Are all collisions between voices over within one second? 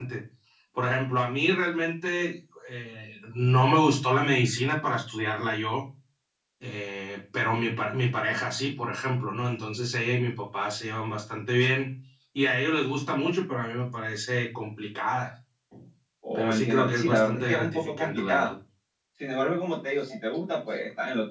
No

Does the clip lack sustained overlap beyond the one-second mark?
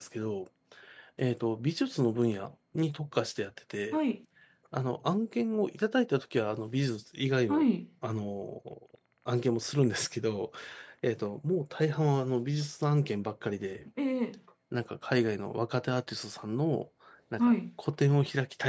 Yes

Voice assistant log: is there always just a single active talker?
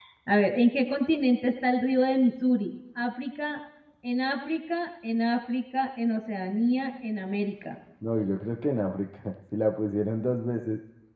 Yes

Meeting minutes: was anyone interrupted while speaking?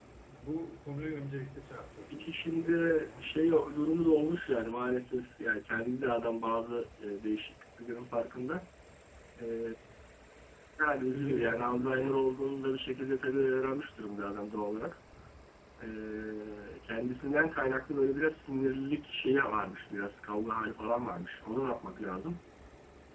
Yes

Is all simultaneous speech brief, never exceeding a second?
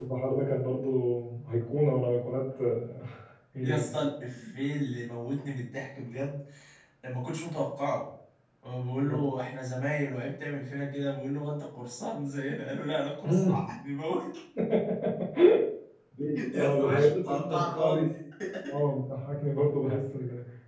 No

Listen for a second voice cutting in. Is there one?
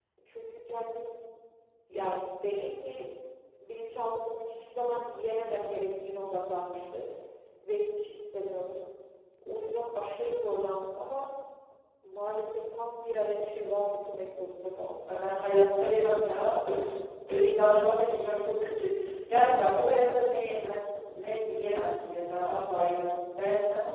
No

